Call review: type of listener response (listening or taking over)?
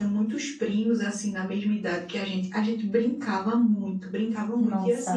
listening